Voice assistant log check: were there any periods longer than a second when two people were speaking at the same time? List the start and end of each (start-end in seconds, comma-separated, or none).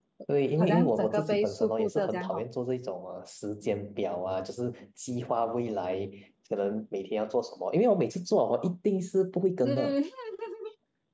0.6-2.4